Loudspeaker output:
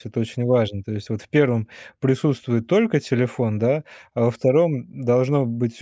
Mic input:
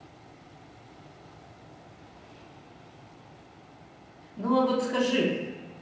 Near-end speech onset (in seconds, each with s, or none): 4.4 s